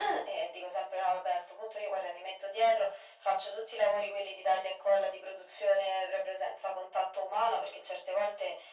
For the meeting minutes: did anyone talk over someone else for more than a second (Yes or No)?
No